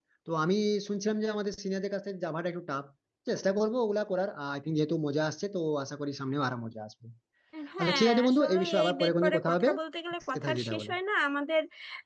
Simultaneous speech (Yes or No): Yes